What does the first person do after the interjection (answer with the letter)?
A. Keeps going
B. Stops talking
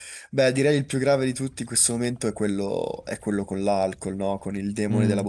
B